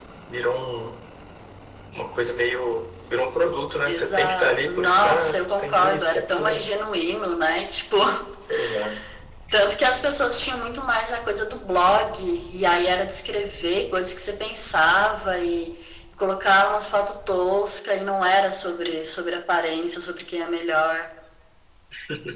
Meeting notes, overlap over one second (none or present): present